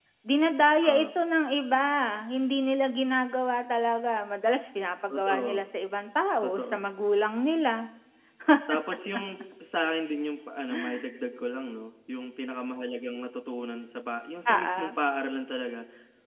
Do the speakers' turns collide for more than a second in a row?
No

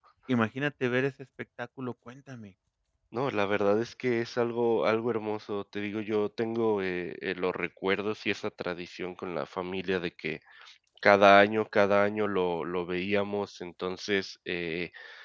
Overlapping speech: No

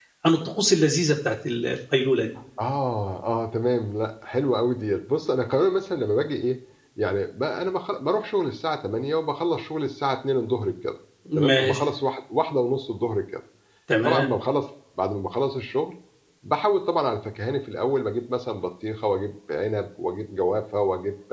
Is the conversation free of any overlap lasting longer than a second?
Yes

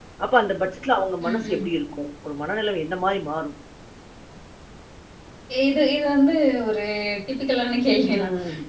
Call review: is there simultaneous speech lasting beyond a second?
No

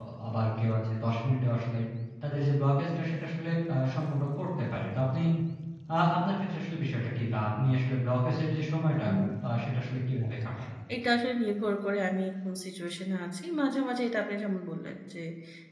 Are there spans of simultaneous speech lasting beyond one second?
No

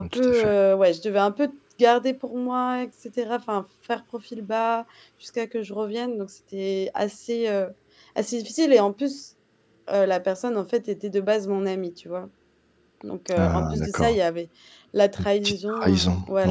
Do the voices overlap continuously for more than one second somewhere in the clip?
Yes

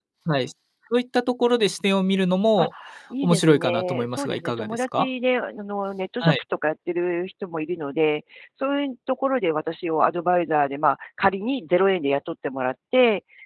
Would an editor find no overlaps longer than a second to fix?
No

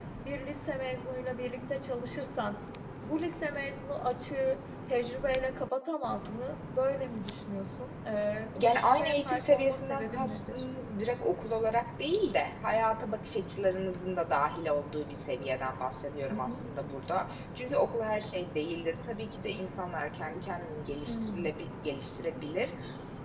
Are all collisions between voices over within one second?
No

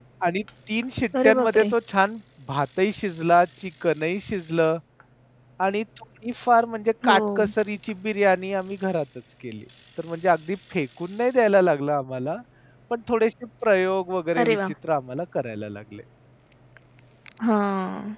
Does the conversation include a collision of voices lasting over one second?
No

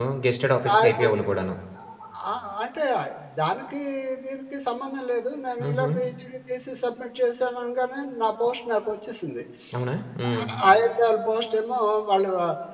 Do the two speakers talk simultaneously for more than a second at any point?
No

